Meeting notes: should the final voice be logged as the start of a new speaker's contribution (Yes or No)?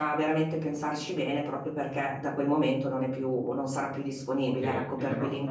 Yes